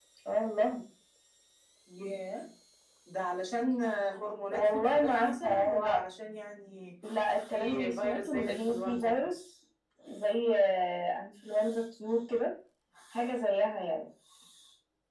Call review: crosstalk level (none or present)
present